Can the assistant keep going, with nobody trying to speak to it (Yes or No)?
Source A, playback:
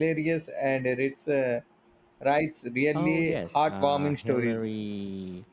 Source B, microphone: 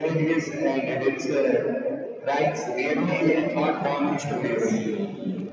Yes